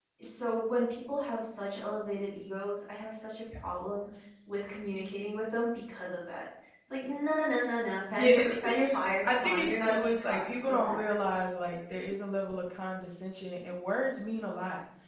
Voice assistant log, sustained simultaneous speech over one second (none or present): present